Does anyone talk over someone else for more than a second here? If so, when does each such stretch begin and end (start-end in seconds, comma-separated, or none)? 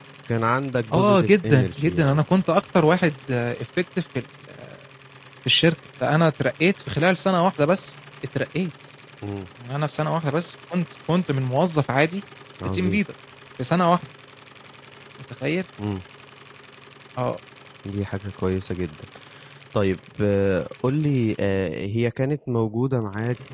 0.9-2.2